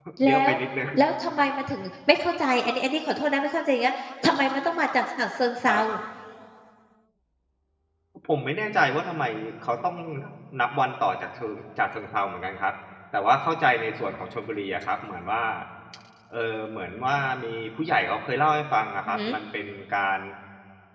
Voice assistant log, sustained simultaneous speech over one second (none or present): none